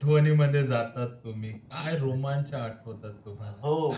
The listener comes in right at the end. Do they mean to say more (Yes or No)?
Yes